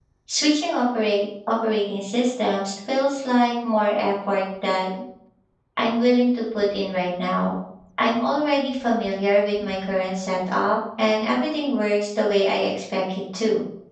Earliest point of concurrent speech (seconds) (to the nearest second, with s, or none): none